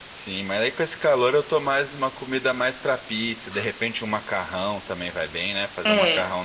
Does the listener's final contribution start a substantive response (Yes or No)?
No